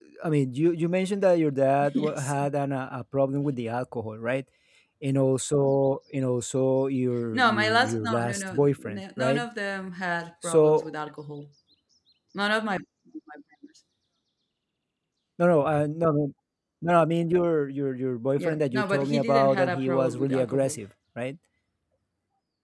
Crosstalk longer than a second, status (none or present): present